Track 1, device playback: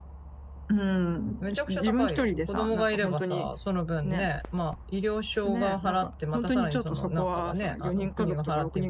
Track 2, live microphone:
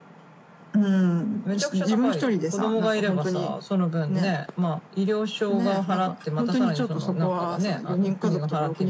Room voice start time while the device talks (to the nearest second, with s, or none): none